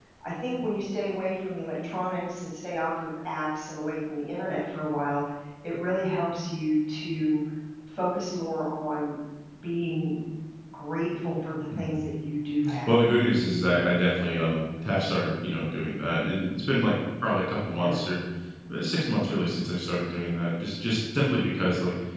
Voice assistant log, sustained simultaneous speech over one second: none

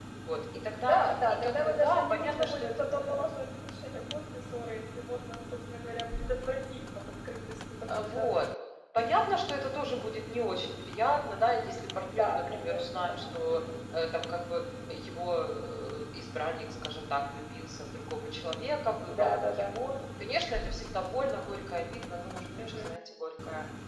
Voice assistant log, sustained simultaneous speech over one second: present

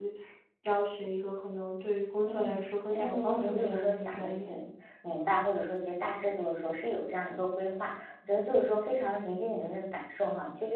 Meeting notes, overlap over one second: present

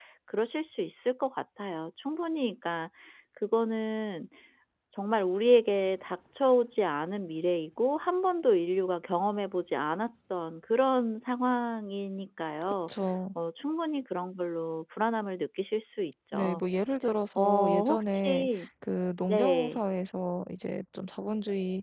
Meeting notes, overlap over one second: present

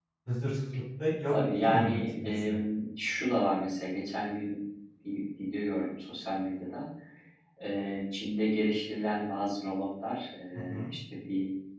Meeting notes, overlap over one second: present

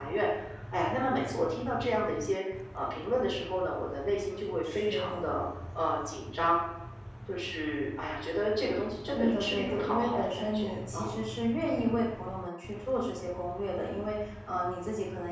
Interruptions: present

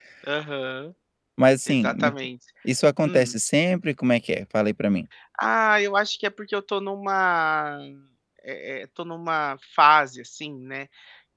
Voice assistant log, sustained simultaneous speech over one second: none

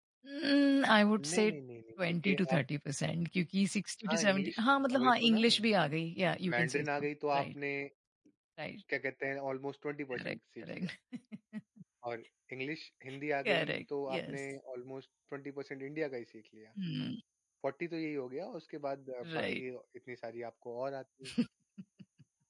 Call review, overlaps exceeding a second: present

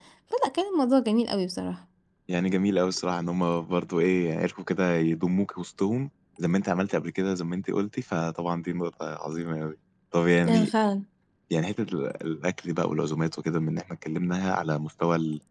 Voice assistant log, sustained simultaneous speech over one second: none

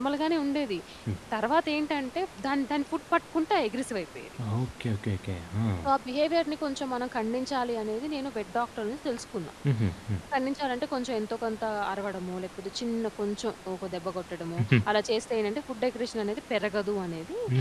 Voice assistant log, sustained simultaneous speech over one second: none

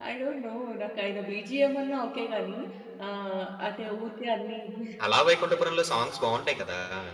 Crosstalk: none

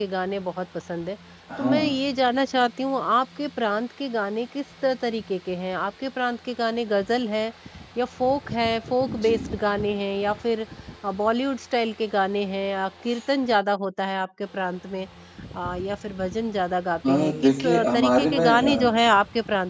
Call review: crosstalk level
present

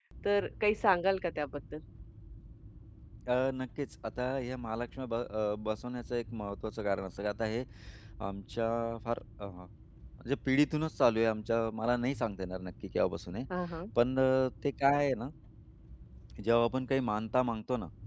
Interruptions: none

